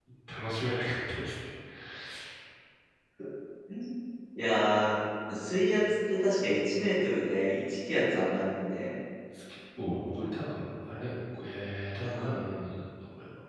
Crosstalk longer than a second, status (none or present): none